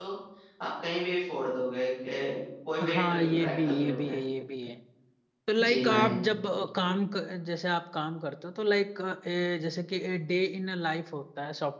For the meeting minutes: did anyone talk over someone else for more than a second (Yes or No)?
Yes